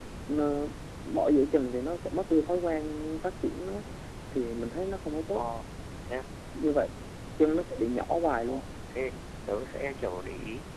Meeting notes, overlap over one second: none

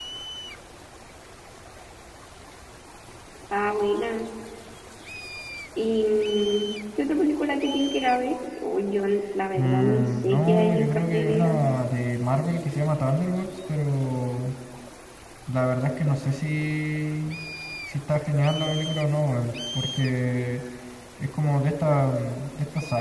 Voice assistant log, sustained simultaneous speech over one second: present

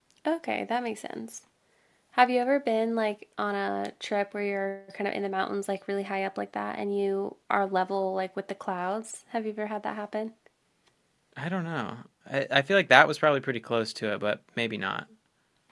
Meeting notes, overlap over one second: none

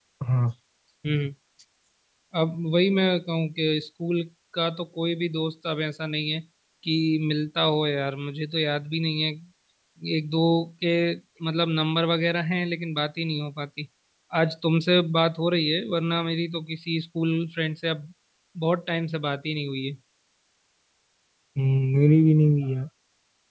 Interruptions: none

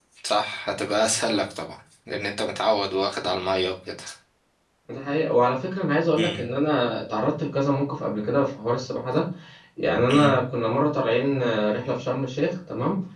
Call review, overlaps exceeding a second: none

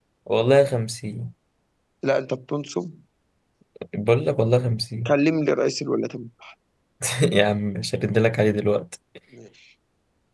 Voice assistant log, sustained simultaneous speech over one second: none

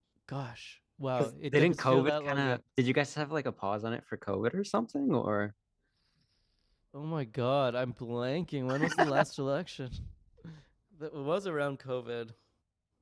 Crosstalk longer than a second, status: present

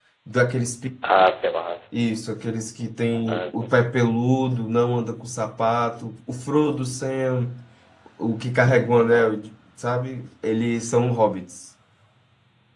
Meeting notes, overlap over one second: none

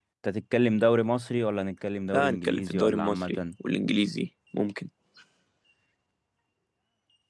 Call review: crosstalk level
present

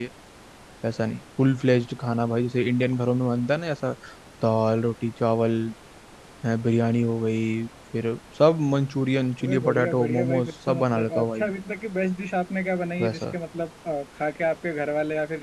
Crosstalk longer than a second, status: present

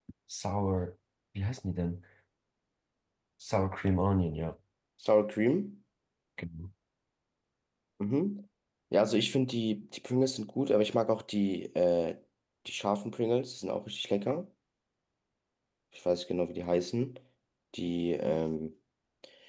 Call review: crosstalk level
none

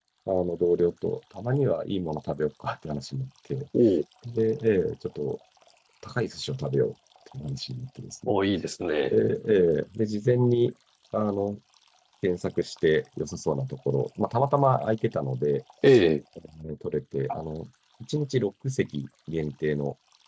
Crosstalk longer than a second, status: none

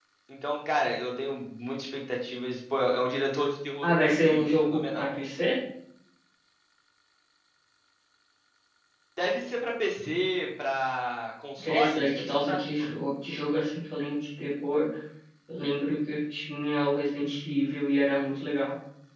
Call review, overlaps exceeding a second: present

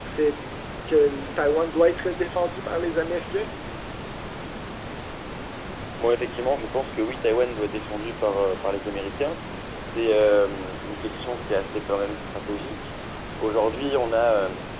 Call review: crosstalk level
none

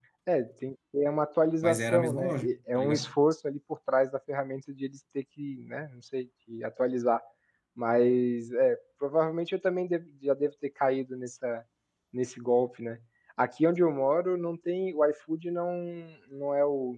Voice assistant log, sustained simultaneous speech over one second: present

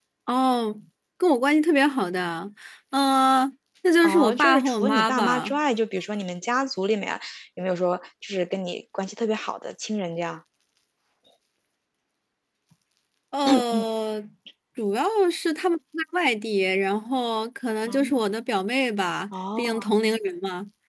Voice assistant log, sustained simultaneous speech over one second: present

